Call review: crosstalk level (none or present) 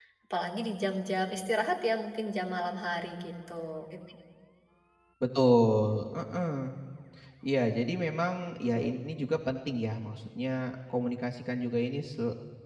none